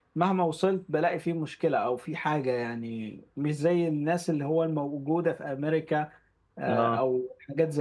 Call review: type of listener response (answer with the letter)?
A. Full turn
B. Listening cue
B